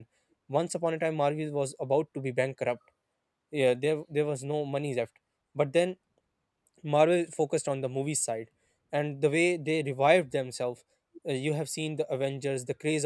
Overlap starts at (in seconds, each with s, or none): none